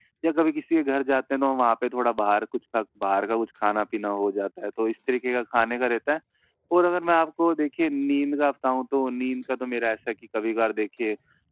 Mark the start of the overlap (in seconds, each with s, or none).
none